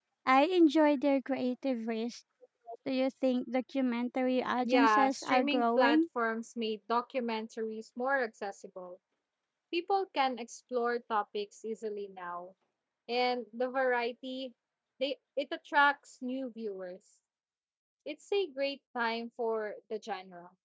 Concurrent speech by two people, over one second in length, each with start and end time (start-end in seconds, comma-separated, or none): 4.6-6.0